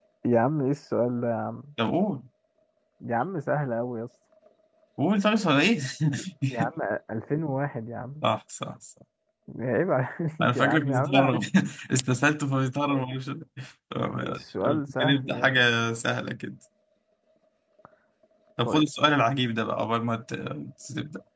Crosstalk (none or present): present